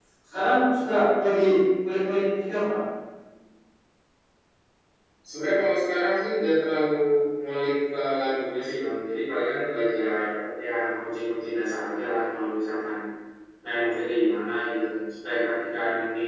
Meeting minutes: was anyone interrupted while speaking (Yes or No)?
No